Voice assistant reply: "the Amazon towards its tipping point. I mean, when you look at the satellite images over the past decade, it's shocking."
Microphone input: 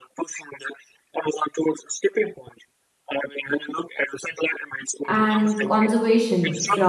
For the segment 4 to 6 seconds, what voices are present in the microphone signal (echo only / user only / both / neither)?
both